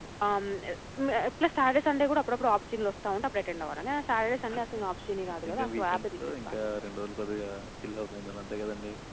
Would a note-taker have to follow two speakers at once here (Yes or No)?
Yes